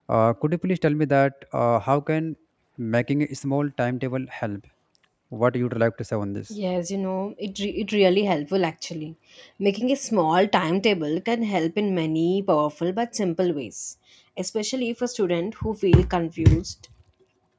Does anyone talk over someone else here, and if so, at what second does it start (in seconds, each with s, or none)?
none